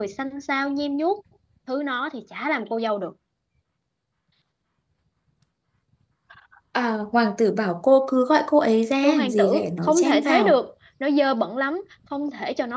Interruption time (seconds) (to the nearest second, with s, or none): 9 s